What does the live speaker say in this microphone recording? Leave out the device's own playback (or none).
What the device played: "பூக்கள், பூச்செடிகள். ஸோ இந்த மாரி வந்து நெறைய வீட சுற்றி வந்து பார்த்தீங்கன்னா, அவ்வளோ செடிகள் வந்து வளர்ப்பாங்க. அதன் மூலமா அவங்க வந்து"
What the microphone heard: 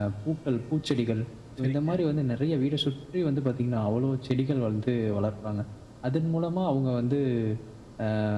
சரிங்க.